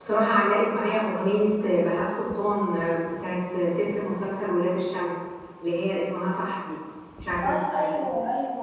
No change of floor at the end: No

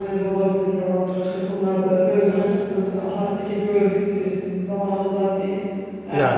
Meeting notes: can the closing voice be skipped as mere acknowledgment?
Yes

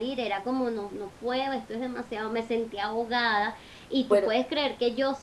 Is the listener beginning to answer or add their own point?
No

